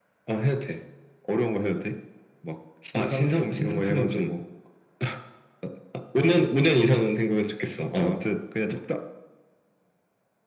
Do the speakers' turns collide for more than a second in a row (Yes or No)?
Yes